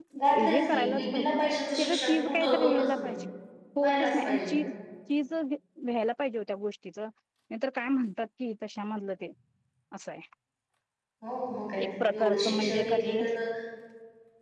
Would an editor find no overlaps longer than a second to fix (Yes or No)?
No